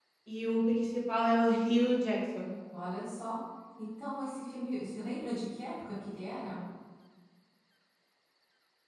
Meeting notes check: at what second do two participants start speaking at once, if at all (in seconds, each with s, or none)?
none